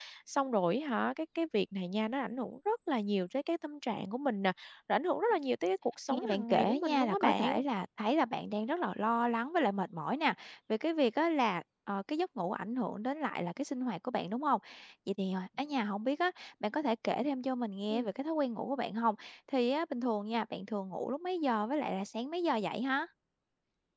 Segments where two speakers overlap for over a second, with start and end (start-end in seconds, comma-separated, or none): 6.1-7.6